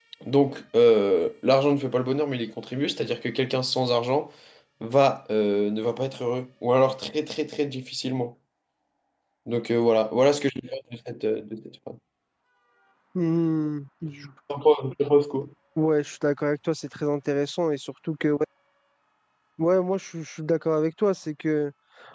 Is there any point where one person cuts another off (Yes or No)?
No